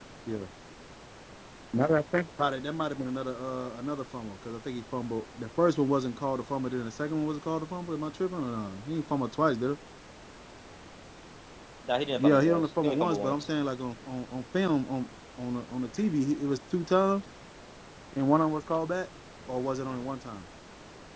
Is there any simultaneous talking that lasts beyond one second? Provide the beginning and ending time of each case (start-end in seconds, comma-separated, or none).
12.3-13.5